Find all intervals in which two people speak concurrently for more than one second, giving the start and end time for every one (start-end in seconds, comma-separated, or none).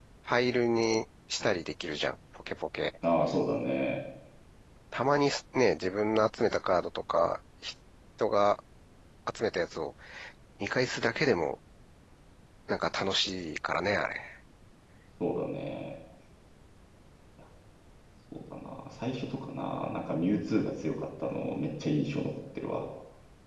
none